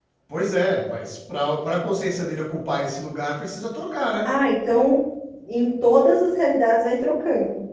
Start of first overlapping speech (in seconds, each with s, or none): none